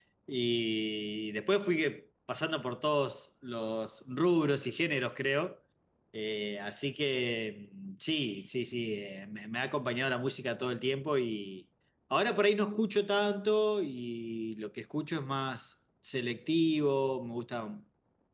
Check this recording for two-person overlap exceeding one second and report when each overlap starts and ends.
none

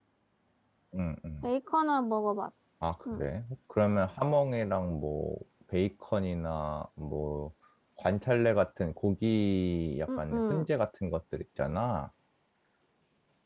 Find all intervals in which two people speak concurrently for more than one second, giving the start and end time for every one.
none

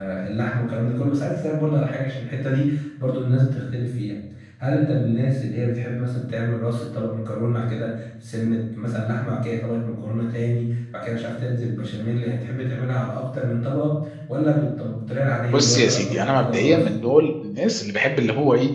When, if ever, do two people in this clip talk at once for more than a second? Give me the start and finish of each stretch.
15.5-16.9

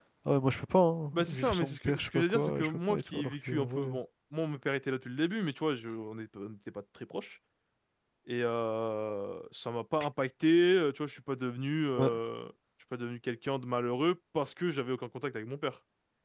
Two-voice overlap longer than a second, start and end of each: 1.1-4.0

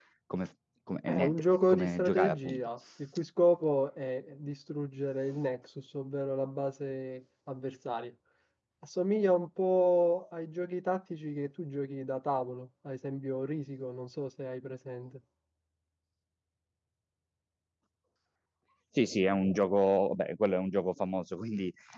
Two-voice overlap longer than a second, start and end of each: 1.1-2.7

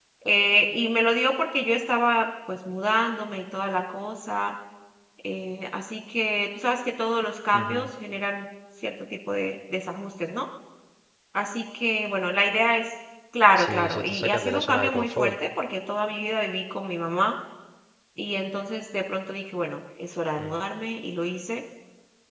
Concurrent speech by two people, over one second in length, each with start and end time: 13.6-15.4

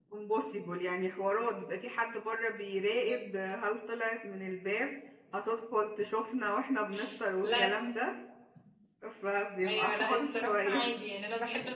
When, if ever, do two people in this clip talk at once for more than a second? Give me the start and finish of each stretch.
9.7-10.9

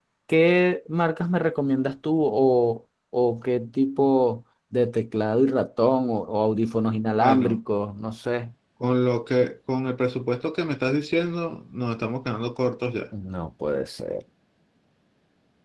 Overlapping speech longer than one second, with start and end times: none

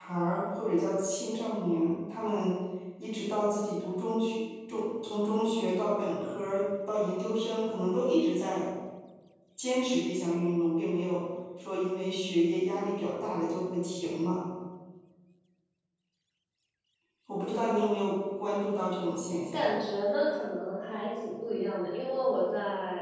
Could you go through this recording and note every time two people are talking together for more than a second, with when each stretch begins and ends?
none

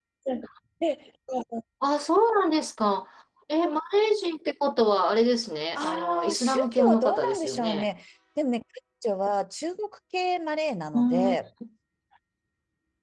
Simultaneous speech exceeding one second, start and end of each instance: 5.8-7.9

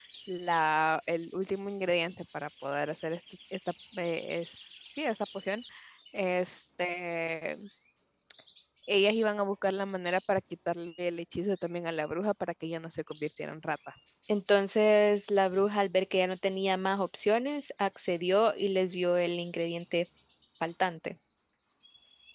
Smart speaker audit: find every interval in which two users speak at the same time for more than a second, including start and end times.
none

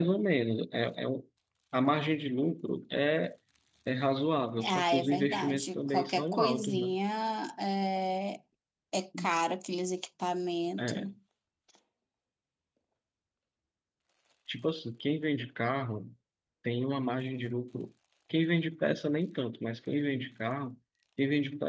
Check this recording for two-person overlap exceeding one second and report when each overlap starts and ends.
4.6-6.9

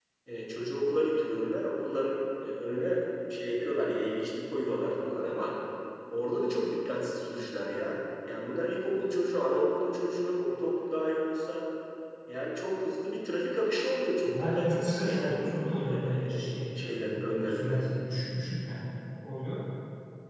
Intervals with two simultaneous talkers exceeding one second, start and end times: 14.2-17.9

